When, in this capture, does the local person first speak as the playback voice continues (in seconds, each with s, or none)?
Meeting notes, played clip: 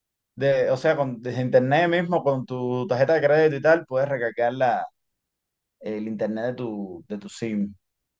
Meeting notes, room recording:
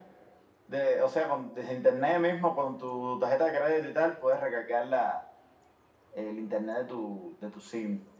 none